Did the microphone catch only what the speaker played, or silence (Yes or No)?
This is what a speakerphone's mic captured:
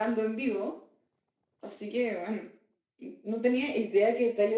Yes